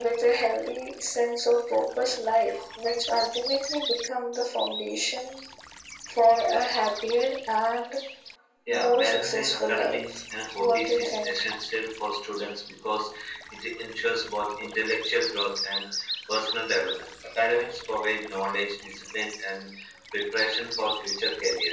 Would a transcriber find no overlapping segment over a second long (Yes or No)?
No